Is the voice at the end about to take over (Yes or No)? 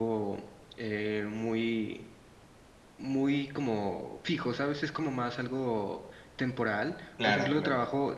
No